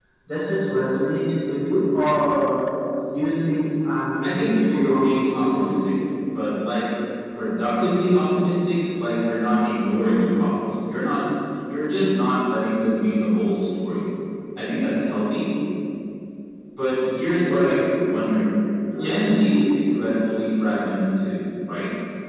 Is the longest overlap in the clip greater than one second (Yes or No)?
Yes